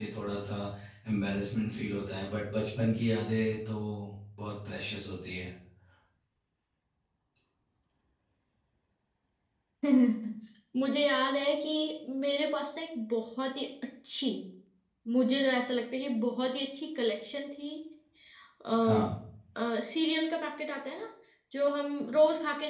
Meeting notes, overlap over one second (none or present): none